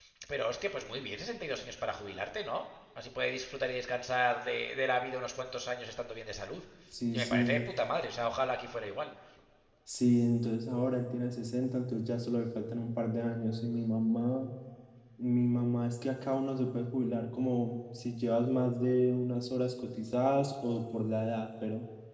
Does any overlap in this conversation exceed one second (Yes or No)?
No